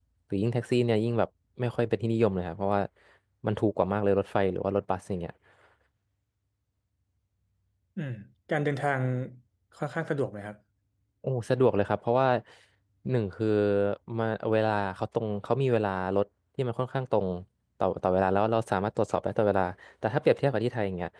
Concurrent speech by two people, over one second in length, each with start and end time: none

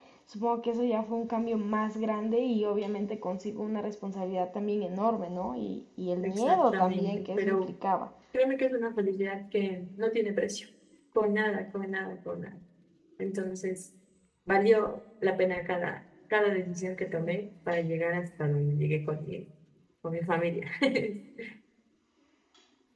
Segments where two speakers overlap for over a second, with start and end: 6.2-7.7

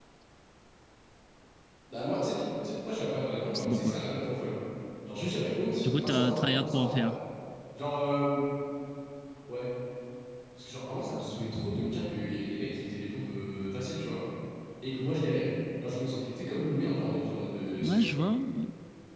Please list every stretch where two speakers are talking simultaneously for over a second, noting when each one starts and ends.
5.8-7.0

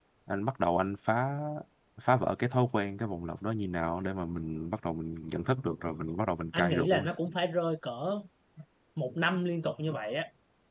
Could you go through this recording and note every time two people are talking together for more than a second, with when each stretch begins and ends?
none

